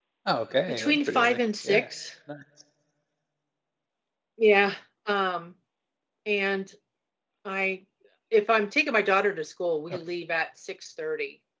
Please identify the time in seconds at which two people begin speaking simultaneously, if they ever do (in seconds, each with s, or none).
0.7 s